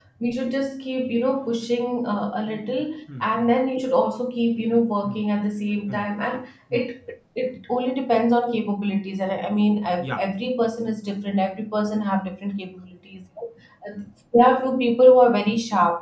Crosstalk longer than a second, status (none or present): none